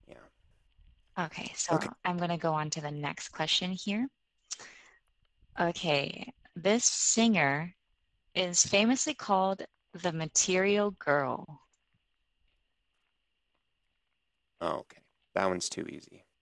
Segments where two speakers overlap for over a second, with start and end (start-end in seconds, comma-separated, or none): none